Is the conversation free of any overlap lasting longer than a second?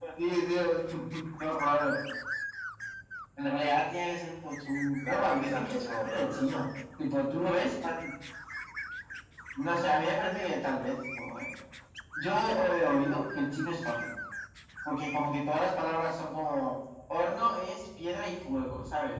No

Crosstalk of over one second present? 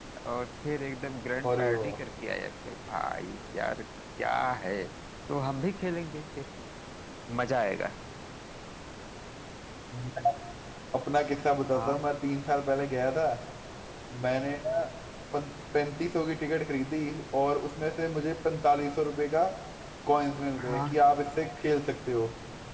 No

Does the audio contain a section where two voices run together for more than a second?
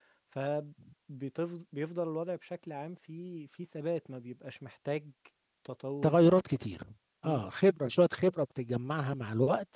No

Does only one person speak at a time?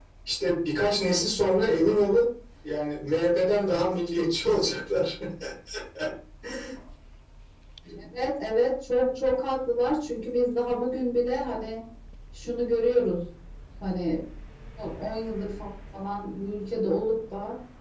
Yes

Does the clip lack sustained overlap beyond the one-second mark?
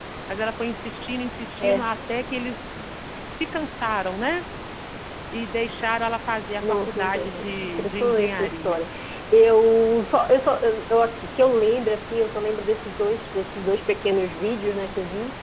No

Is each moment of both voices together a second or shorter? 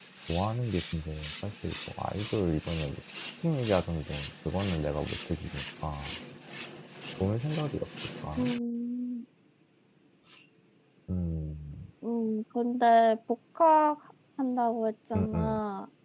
Yes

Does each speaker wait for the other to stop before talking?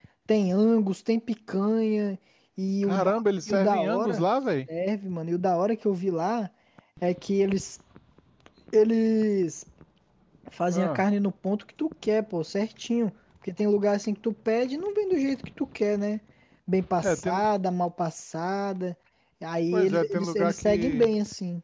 No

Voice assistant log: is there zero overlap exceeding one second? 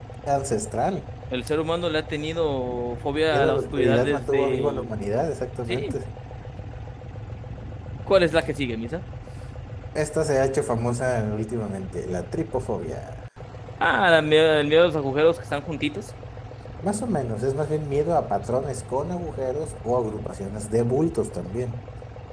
No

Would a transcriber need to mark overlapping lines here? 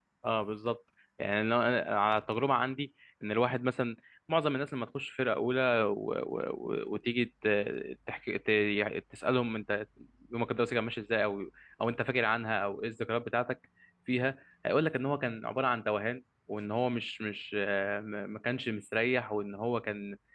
No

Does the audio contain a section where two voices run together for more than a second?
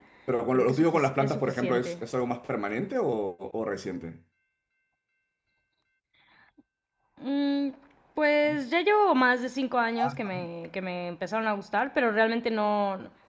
Yes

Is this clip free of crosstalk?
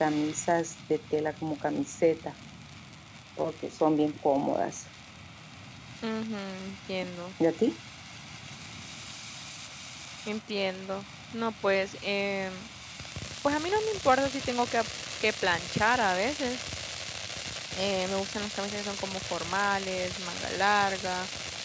Yes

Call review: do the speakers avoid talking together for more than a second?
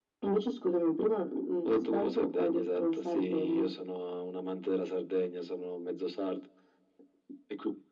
No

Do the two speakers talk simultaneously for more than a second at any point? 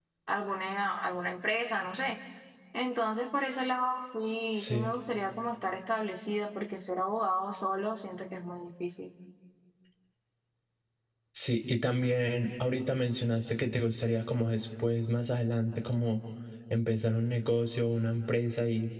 No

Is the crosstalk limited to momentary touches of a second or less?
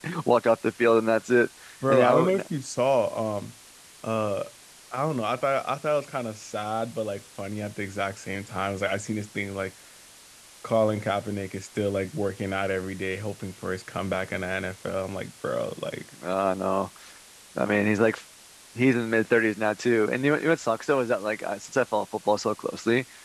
Yes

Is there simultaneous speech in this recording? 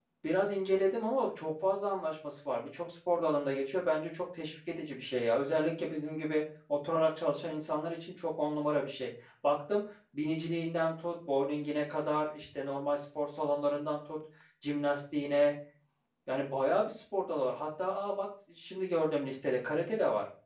No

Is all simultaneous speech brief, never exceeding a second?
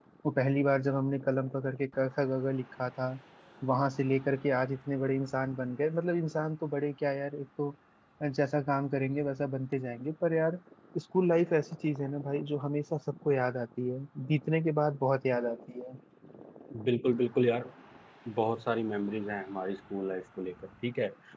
Yes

